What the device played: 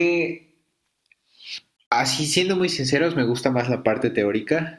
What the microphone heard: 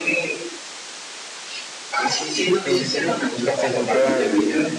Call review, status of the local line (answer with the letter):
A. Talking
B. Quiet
A